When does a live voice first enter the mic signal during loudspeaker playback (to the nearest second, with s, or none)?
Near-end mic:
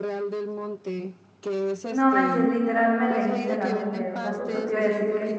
2 s